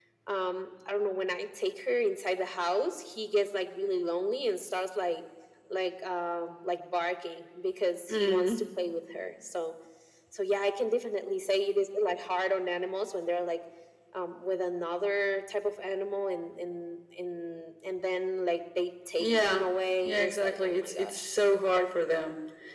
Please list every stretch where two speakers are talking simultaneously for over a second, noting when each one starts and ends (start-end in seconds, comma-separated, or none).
20.0-21.4